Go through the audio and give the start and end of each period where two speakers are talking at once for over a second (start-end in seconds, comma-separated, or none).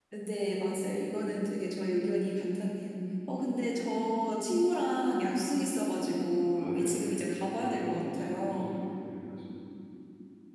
6.5-8.7